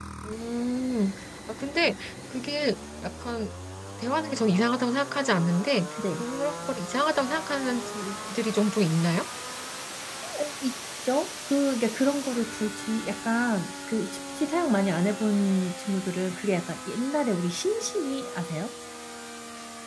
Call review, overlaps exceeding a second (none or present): none